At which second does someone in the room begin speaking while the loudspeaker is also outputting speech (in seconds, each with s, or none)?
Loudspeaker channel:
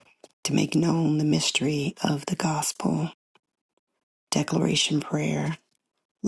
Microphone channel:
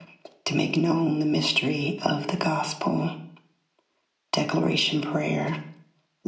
none